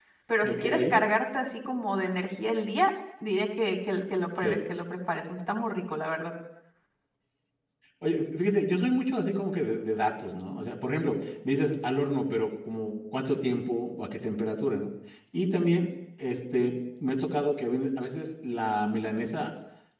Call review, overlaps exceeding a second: none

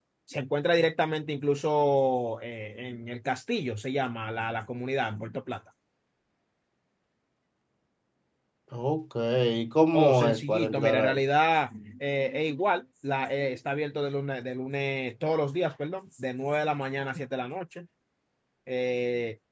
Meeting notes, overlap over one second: present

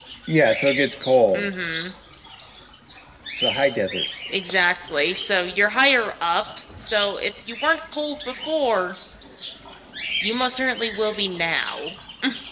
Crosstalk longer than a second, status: none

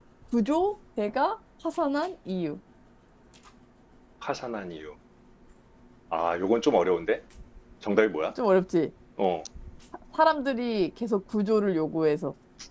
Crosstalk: none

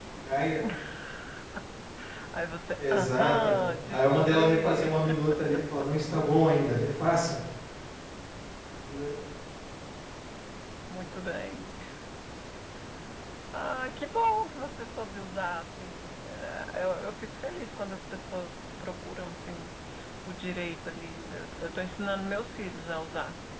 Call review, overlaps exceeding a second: present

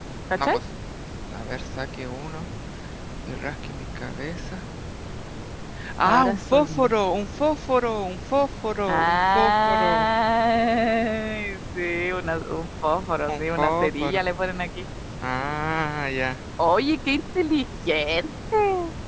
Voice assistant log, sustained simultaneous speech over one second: present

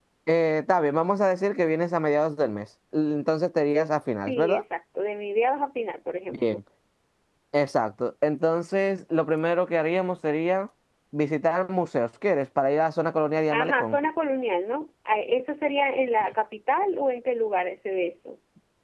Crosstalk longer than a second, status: none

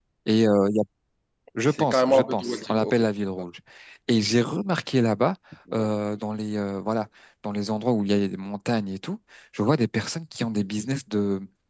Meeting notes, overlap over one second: present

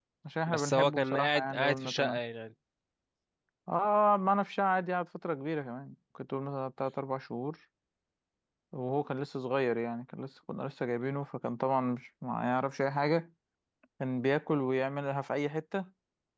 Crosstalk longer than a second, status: present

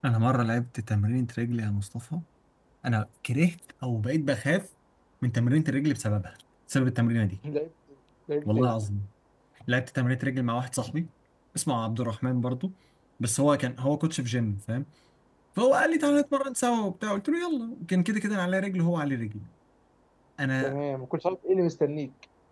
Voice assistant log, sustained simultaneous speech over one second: none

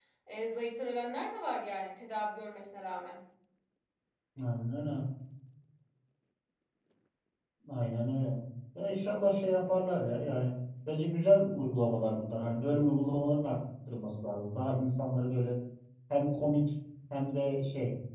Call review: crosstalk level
none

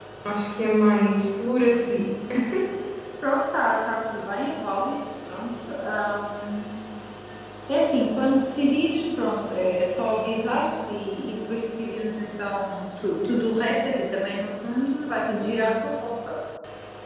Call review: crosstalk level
none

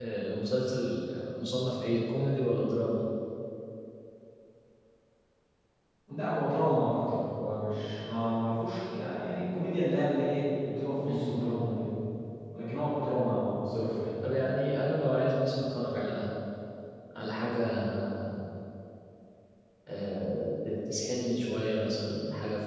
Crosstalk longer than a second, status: none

